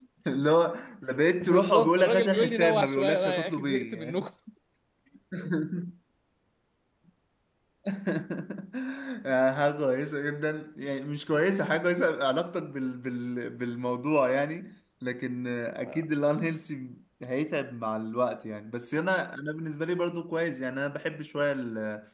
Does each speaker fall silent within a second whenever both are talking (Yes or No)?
No